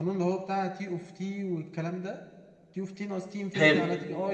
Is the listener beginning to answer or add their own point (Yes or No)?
No